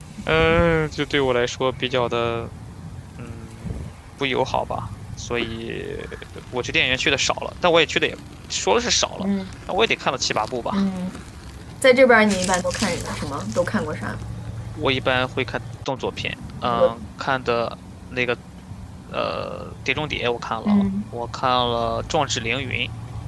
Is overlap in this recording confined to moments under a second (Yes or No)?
Yes